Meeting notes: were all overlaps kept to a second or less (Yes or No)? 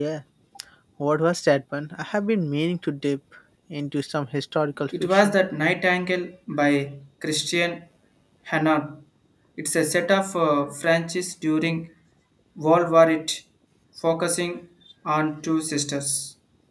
Yes